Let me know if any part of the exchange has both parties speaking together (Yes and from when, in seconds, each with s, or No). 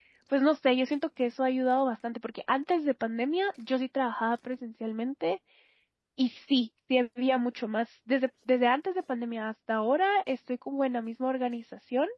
No